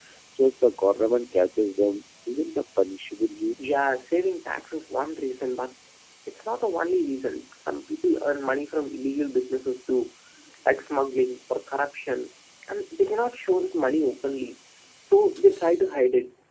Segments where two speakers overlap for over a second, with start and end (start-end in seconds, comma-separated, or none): none